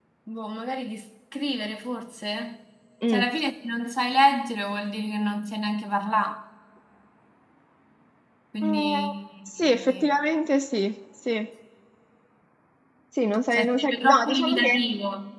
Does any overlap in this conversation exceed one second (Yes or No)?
Yes